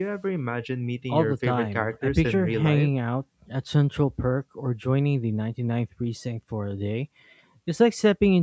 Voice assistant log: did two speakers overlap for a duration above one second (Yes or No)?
Yes